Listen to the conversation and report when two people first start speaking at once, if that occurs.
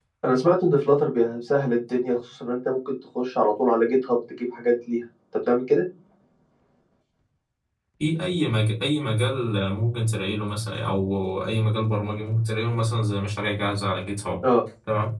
none

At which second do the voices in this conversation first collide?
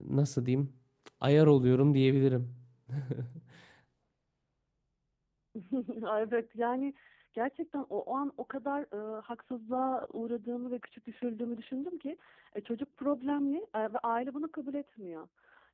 none

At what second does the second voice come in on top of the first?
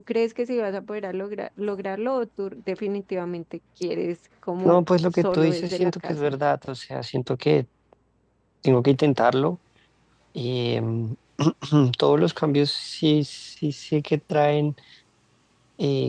5 s

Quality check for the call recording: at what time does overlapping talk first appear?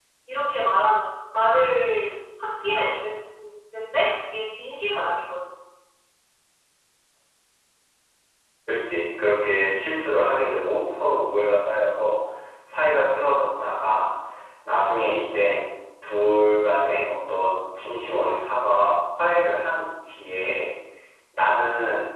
none

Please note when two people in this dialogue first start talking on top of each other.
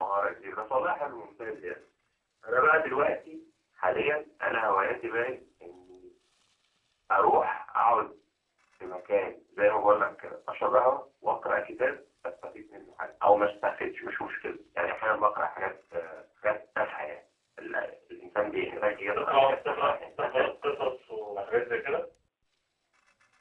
19 s

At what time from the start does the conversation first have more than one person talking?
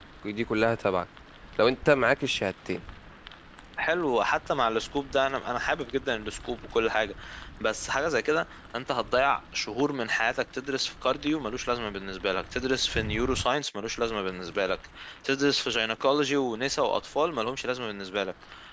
none

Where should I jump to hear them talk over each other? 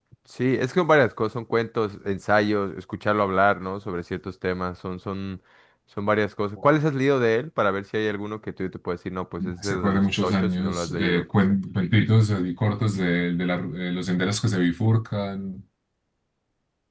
9 s

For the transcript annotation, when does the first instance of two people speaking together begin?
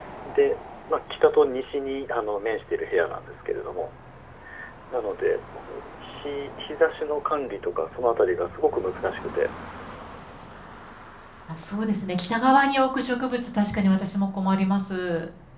none

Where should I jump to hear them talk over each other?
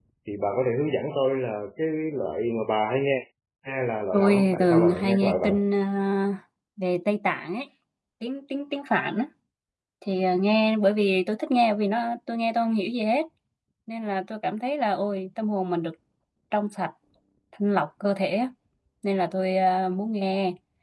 4 s

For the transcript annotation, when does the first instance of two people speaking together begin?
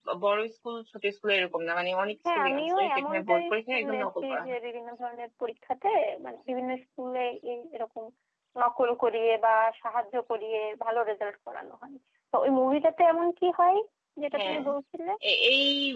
2 s

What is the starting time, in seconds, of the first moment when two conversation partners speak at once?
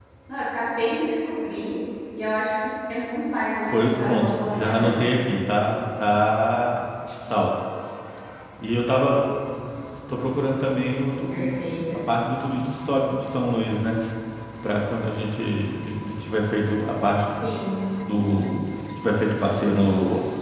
4 s

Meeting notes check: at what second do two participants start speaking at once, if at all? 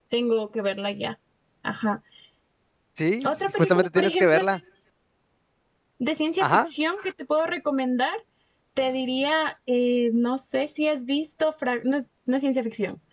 3 s

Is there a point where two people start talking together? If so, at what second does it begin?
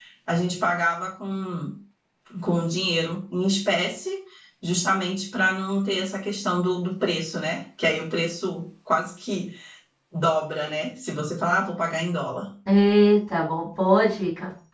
none

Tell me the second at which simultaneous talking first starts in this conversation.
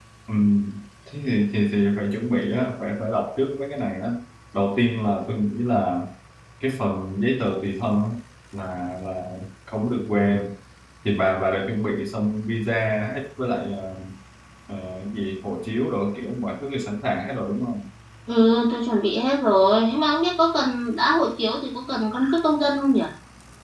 none

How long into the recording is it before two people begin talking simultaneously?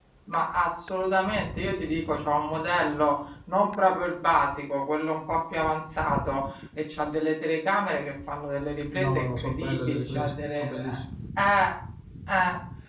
9 s

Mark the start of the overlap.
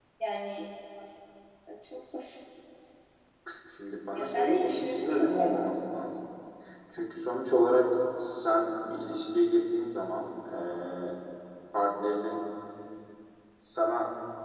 4 s

